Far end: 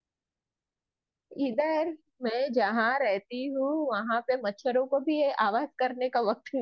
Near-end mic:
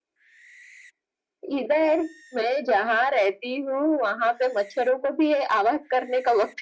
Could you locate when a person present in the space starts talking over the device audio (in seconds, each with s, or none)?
none